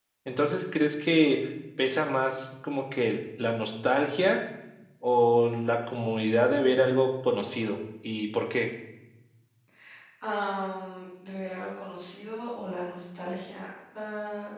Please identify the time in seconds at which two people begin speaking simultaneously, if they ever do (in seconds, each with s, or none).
none